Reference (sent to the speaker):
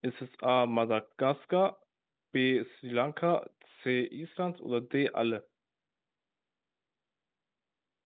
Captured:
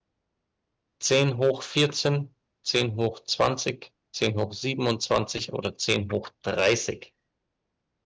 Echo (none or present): none